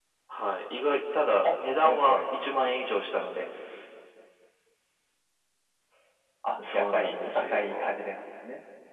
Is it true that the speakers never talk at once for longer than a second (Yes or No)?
No